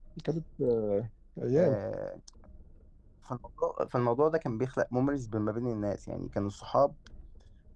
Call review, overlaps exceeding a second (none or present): none